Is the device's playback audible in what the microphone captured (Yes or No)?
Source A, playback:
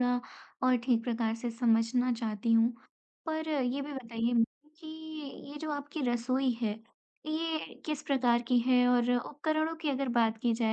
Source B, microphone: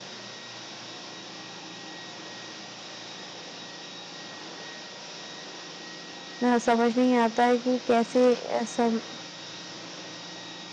No